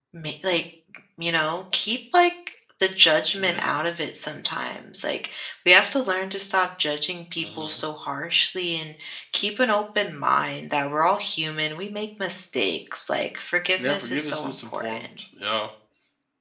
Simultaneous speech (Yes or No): Yes